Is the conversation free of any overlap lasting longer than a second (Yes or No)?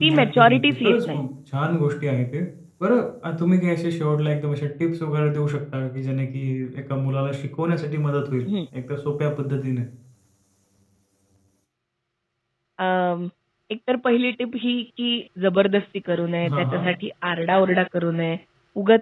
No